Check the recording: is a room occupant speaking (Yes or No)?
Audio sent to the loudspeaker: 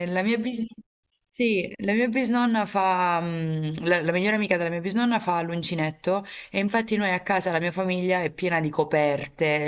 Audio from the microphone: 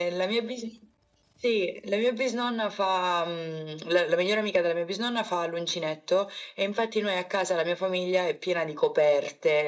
No